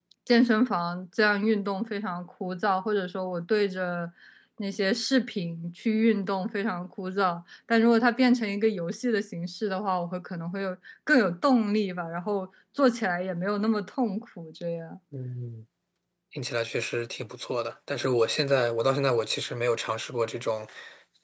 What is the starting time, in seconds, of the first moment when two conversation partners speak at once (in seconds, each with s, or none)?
none